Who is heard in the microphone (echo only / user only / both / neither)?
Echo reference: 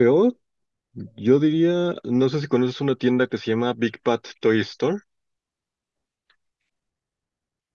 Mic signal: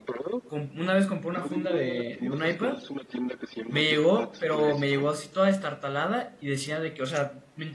both